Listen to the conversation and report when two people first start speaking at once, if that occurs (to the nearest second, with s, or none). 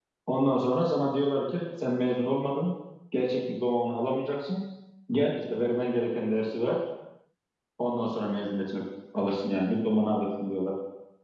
none